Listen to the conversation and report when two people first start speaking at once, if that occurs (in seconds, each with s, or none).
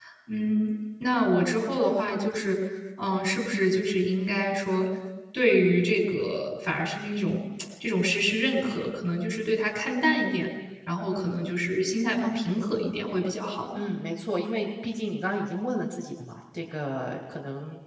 none